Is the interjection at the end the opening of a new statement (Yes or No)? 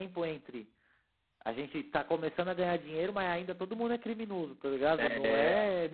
No